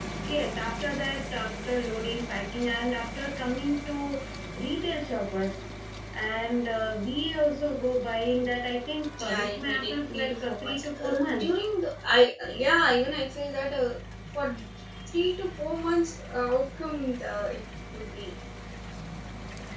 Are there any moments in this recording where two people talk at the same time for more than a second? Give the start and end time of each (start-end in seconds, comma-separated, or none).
9.2-11.5